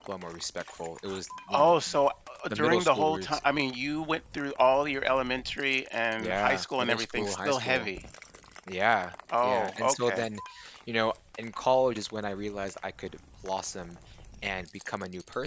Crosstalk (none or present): present